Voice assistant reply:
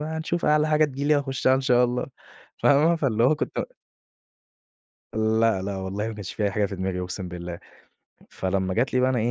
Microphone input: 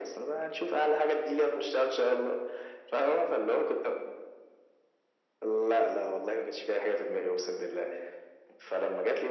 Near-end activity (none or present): none